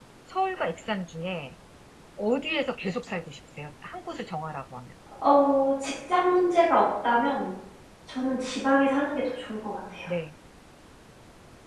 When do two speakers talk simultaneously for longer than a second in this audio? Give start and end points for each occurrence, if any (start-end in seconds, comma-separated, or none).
none